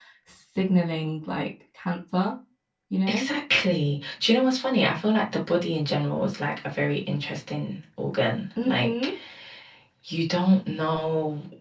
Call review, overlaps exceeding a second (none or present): none